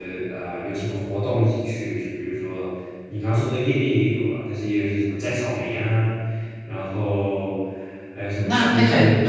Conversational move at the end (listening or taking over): taking over